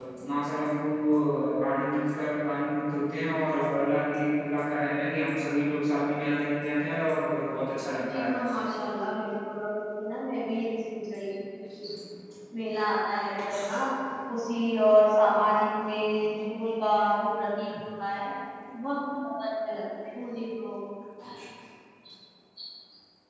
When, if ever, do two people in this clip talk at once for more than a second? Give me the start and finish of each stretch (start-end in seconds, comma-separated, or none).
none